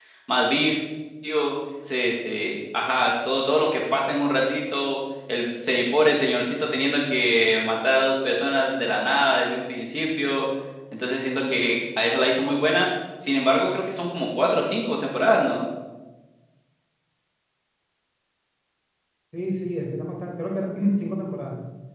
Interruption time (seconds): none

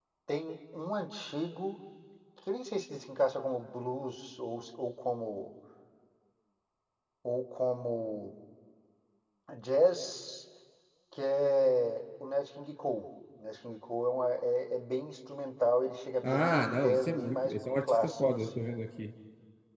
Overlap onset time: 16.2 s

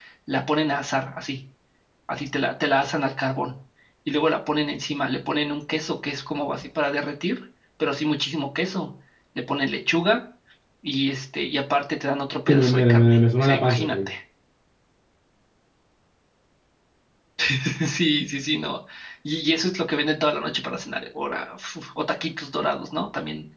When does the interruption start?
12.5 s

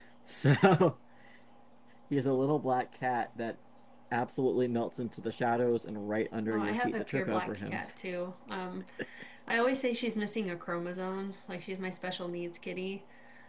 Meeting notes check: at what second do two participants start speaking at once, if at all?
6.5 s

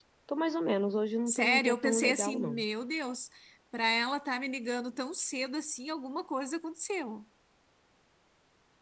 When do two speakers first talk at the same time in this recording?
1.3 s

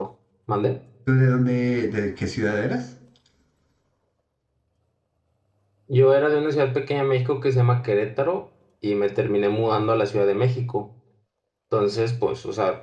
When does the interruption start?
none

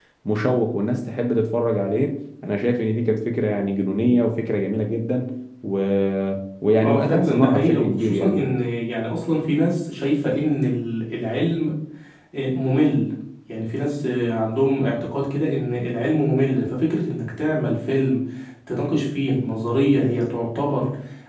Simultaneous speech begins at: 6.8 s

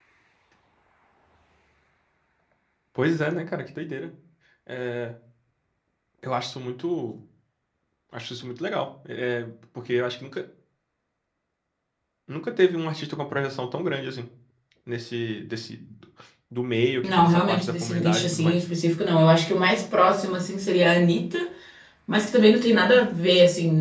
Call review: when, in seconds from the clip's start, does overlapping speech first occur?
17.0 s

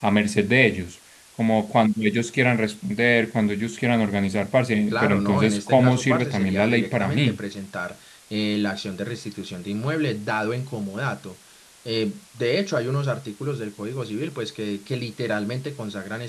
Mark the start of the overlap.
4.9 s

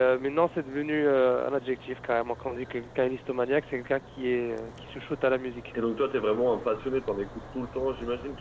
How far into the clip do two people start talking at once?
none

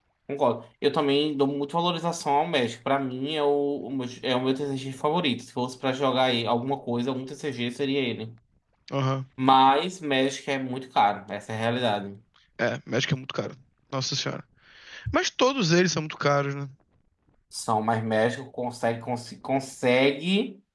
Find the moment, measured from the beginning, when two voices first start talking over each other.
none

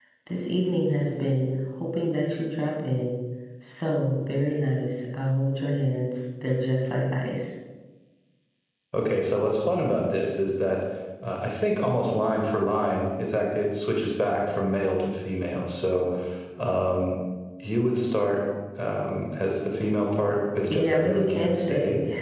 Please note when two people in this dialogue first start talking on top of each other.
20.7 s

